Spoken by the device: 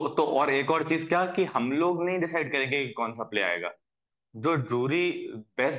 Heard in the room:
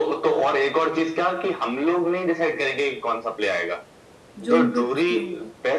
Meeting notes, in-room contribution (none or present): present